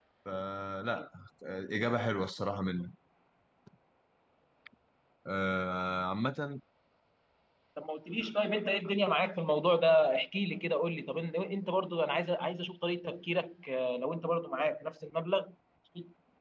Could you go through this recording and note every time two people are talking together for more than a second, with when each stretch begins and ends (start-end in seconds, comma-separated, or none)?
none